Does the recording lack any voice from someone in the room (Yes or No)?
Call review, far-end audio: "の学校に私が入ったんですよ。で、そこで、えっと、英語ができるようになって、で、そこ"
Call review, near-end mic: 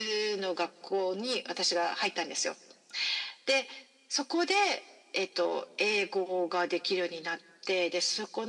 Yes